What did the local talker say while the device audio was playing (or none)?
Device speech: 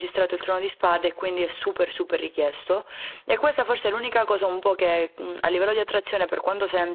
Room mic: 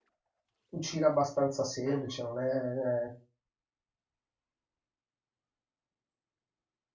cucina abbastanza semplice, non è eh,